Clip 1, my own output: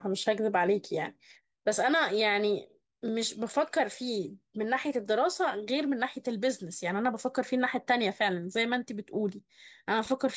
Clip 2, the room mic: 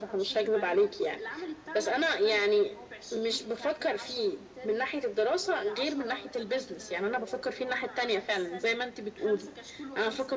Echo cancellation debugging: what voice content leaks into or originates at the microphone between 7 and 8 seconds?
both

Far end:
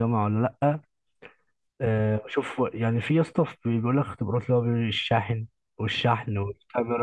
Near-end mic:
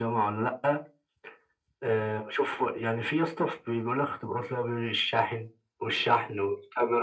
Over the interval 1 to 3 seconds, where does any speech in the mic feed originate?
echo only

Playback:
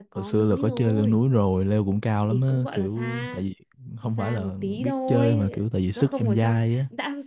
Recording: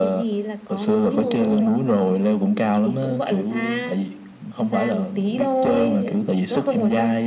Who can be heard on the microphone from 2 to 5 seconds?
echo only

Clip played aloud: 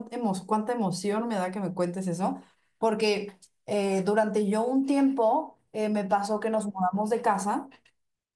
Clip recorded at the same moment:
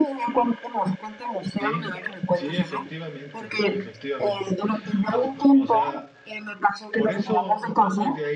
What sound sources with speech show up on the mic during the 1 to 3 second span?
both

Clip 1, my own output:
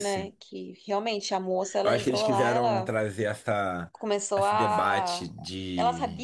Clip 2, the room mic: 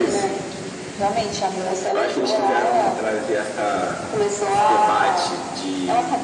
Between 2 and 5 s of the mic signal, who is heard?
echo only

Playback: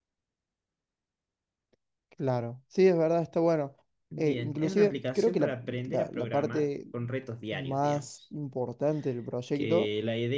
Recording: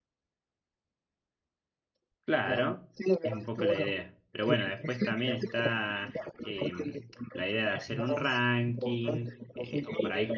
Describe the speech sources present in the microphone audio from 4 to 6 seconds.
both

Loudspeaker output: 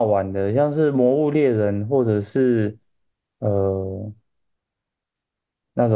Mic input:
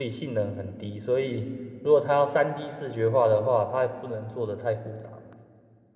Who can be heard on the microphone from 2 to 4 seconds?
user only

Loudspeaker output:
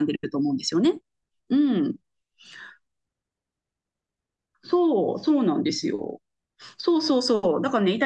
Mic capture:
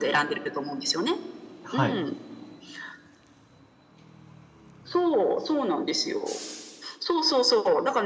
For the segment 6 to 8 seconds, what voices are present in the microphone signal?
echo only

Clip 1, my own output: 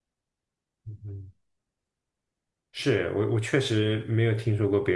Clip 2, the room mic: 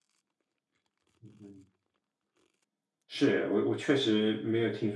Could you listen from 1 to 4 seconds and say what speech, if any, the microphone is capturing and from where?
echo only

